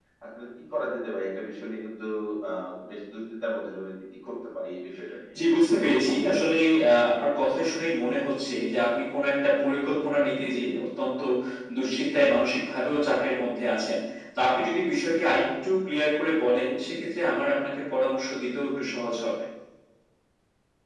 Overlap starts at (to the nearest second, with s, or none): none